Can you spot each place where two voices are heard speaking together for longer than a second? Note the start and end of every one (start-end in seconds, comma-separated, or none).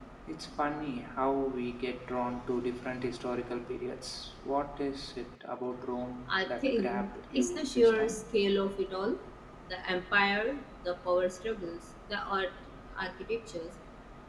6.4-8.2